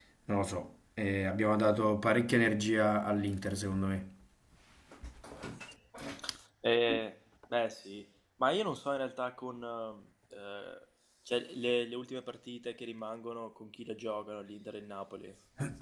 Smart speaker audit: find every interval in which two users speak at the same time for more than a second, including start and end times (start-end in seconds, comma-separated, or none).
none